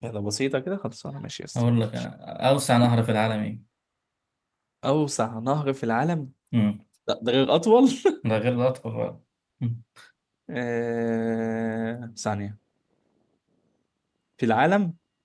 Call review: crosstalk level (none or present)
none